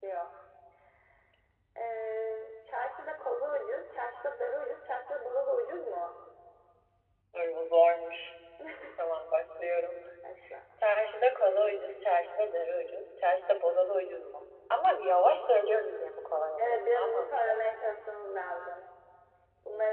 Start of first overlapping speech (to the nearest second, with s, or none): 17 s